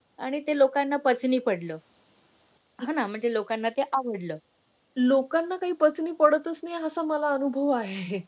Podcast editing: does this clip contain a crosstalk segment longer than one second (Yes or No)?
No